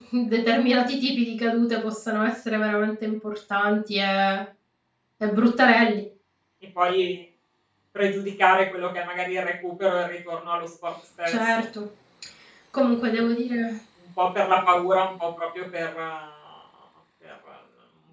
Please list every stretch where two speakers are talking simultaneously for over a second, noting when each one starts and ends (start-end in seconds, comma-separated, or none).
none